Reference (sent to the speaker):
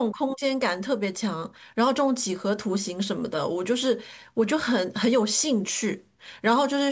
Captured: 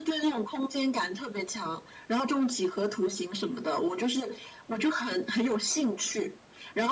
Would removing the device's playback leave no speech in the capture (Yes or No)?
Yes